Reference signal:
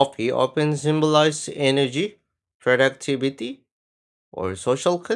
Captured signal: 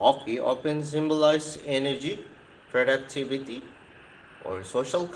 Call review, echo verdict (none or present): present